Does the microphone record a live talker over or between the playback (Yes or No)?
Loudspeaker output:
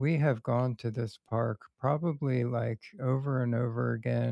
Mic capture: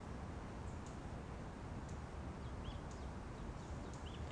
No